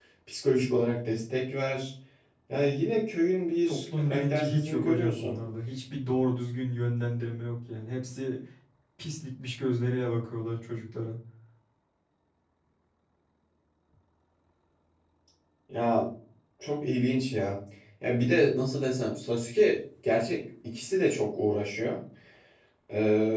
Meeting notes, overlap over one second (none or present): present